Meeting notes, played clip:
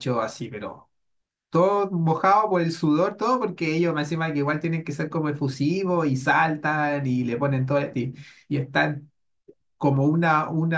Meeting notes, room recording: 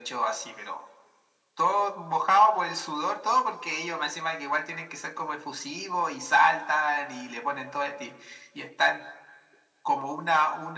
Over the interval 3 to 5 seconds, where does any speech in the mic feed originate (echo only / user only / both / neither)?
echo only